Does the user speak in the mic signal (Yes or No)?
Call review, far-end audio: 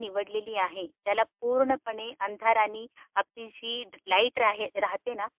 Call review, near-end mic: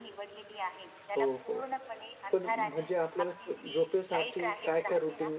Yes